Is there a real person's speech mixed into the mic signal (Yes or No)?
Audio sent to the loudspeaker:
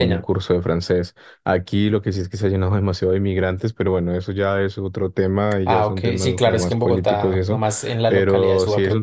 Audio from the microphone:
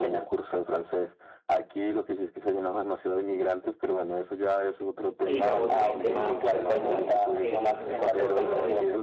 Yes